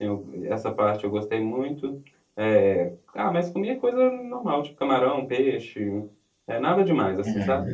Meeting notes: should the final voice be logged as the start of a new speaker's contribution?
Yes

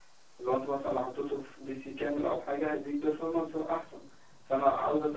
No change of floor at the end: Yes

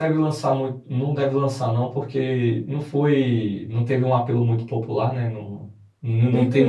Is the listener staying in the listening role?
Yes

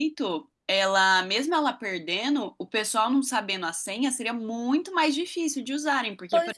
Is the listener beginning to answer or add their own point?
Yes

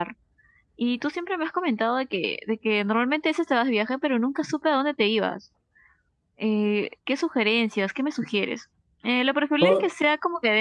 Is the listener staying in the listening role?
Yes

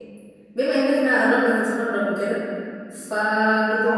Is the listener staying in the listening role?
Yes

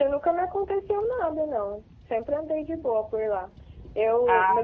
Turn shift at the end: No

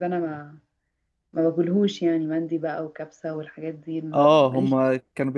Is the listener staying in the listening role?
No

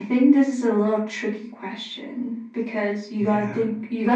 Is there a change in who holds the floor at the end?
No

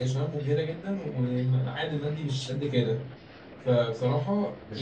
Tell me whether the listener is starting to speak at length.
Yes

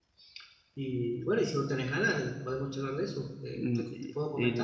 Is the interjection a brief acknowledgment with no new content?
No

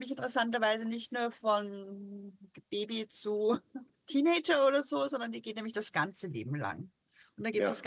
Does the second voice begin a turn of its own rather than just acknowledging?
No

